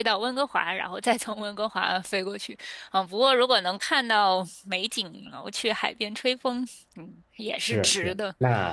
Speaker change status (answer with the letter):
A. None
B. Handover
B